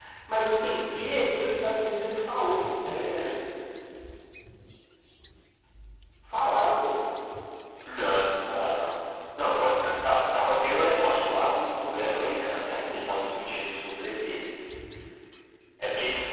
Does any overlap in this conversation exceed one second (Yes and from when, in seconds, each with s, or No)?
No